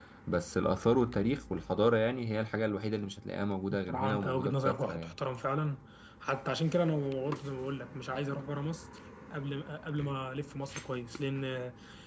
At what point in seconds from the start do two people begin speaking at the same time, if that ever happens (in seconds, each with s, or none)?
3.7 s